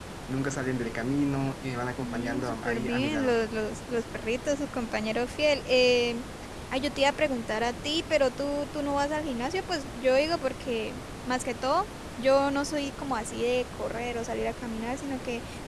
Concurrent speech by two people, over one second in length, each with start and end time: 2.0-3.3

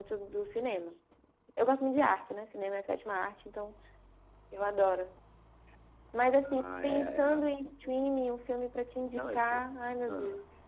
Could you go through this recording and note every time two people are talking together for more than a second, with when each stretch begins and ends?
6.4-7.7

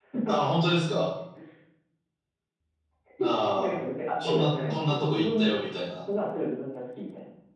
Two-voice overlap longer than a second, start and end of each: 4.2-5.5

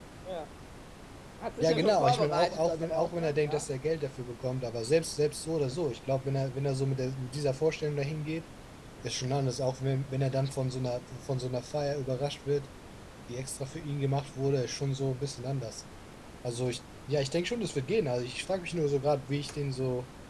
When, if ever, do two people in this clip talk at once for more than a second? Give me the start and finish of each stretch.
1.6-3.6

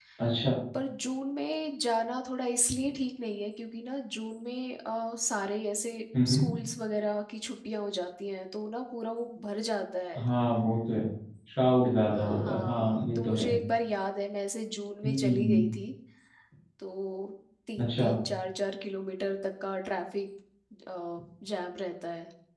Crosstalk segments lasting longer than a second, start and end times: 12.2-13.5

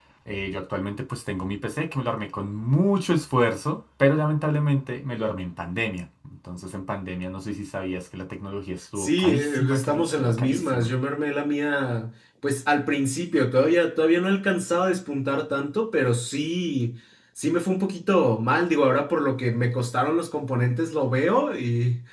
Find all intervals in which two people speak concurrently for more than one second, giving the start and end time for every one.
9.0-10.9

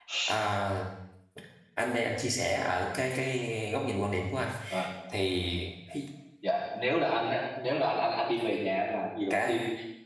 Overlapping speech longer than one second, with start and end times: none

